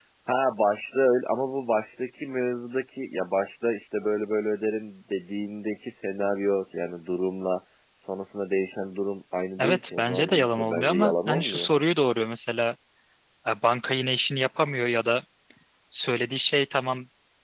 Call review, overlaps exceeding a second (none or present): present